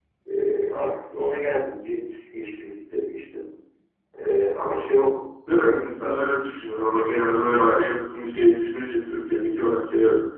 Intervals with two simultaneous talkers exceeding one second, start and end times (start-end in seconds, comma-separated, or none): none